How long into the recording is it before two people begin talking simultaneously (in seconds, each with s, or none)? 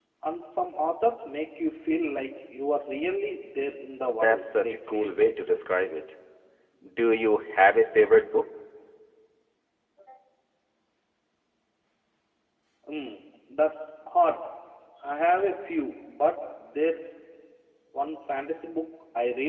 4.0 s